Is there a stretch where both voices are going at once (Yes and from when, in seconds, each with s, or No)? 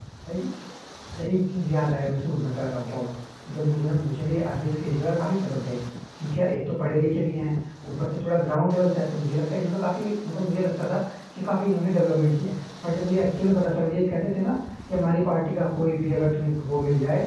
No